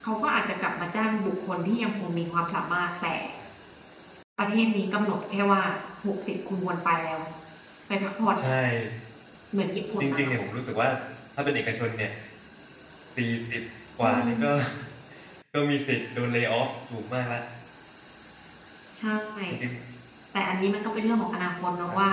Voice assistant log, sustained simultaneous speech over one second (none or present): none